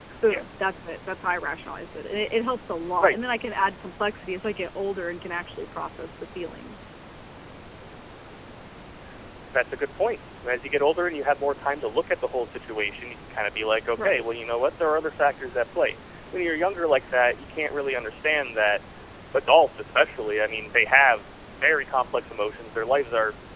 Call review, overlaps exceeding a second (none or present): none